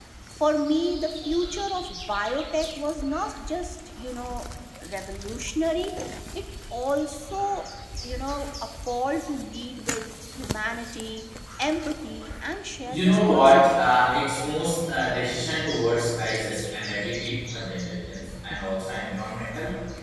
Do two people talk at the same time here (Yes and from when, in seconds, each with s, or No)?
Yes, from 12.8 s